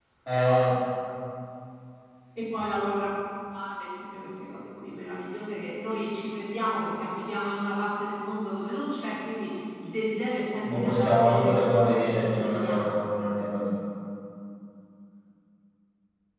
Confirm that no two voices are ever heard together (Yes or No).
No